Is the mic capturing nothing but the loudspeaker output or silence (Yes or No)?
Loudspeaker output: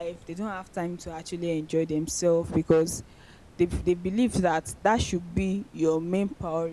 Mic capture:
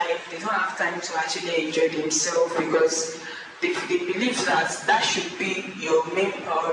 Yes